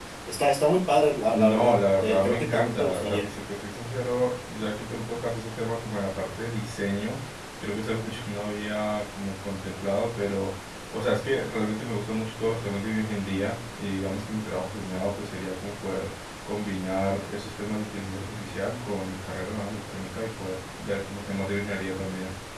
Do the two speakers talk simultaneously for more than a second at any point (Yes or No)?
Yes